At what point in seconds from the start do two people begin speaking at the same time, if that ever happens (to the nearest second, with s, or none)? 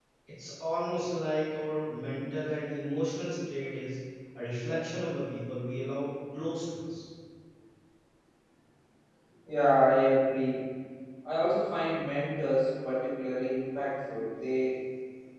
none